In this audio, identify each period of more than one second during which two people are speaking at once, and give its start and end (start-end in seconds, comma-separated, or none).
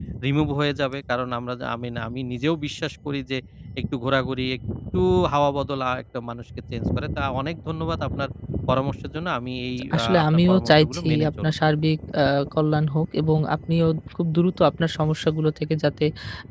9.9-11.5